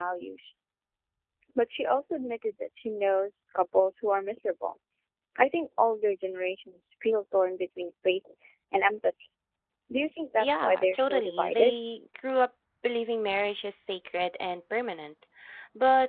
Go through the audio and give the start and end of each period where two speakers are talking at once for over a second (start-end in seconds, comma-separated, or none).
10.4-11.8